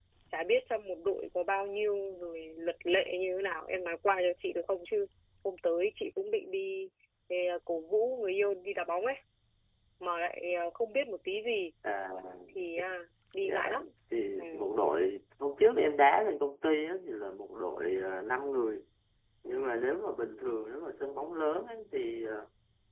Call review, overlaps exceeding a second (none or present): none